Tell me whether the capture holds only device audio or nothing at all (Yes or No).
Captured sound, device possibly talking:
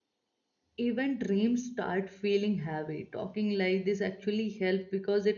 No